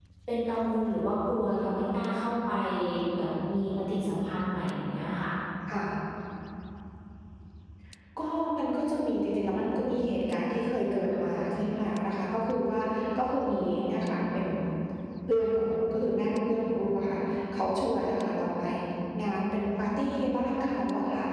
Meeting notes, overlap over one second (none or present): none